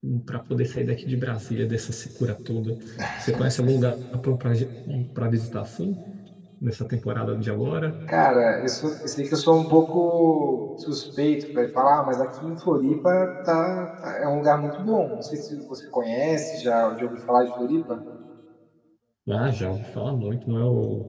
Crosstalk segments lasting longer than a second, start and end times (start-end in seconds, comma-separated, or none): none